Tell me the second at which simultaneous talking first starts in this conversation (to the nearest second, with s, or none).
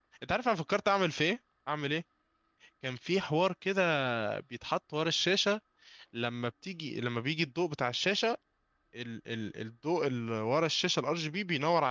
none